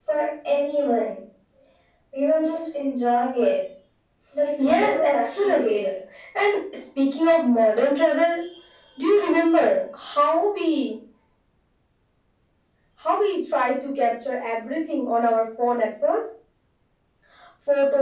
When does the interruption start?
4.6 s

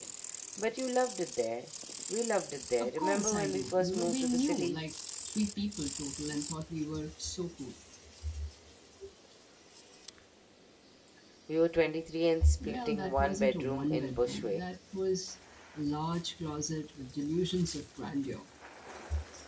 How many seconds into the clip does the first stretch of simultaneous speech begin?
2.8 s

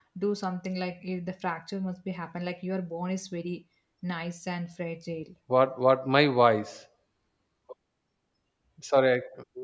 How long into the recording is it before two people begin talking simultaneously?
none

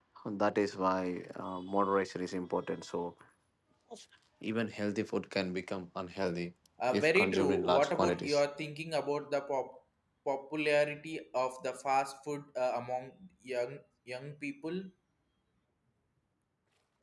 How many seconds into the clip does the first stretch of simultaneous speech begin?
6.8 s

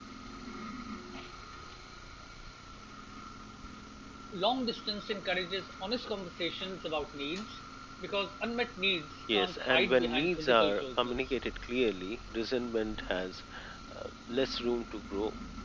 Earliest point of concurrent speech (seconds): 9.3 s

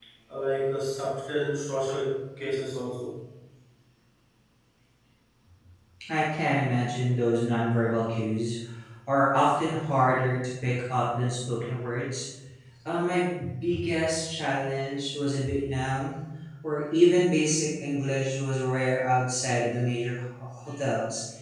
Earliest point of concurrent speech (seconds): none

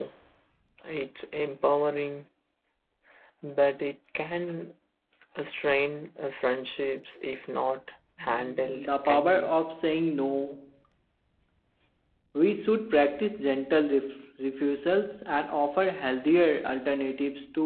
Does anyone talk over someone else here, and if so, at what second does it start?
8.2 s

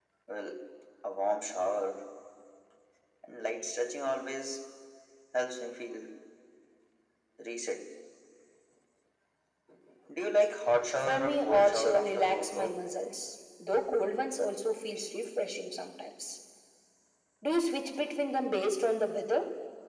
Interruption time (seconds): 11.1 s

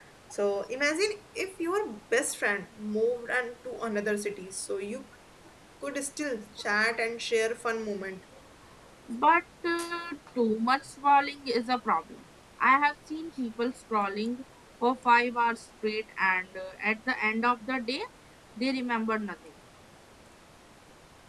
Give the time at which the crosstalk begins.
none

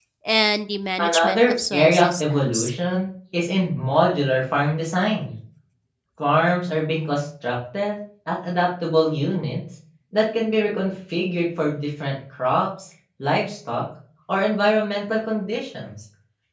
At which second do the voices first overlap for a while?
1.0 s

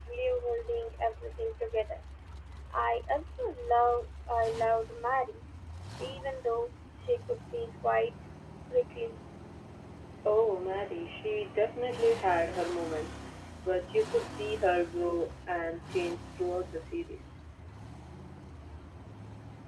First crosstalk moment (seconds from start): none

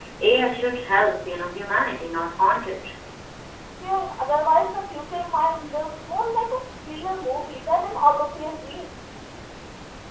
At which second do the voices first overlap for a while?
none

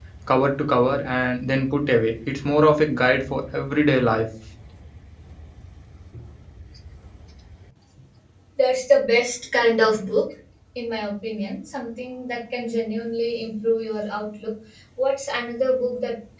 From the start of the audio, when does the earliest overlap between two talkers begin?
none

